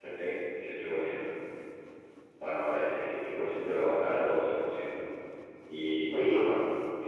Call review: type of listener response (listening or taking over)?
listening